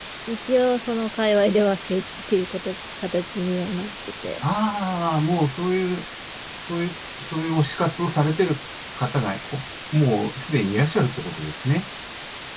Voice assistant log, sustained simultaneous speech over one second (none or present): none